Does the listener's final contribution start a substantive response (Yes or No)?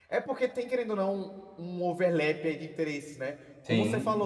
No